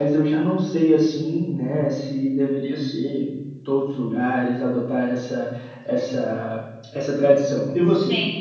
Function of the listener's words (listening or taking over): taking over